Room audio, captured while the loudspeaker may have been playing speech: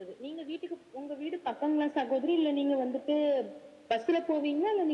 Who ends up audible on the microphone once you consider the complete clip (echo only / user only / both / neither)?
echo only